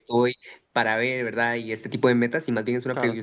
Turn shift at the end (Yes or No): No